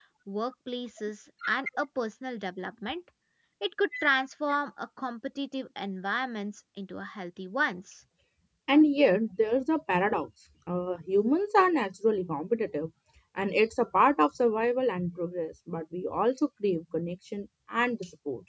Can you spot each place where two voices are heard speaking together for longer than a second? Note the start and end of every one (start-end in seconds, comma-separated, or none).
none